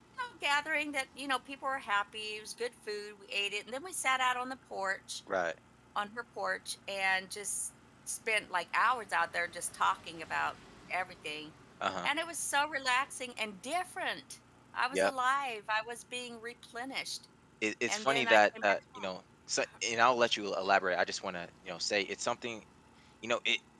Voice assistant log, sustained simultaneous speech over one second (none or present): present